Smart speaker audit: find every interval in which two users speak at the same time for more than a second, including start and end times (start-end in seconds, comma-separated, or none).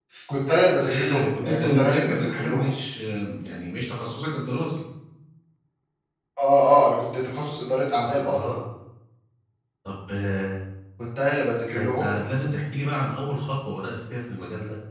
0.9-2.7